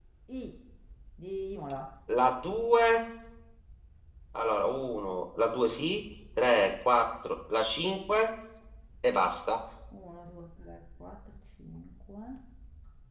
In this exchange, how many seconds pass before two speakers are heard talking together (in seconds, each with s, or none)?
none